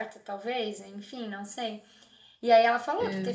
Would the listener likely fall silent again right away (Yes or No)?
Yes